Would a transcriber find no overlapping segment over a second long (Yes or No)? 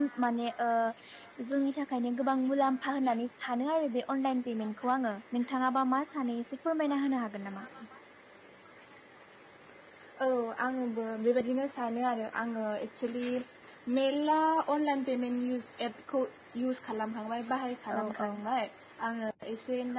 Yes